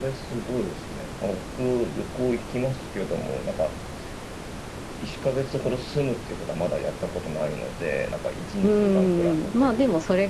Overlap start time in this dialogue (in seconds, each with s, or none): 8.6 s